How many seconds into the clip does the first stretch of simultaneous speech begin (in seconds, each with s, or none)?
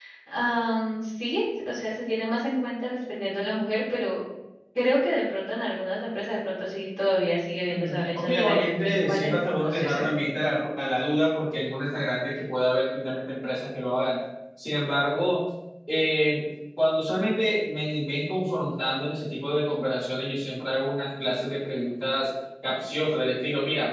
7.7 s